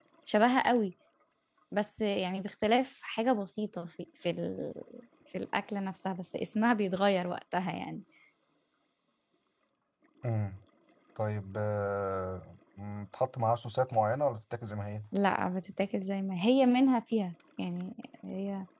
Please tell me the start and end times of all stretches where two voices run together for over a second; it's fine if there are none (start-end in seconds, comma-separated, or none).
none